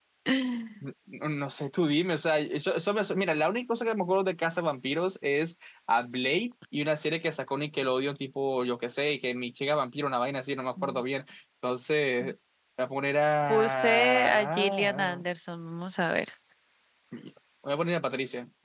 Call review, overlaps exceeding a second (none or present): present